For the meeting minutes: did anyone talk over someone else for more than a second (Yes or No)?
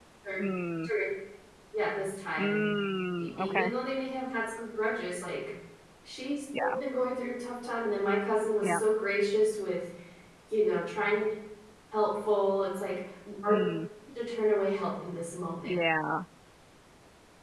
No